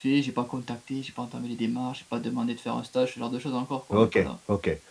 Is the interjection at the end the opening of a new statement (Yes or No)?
Yes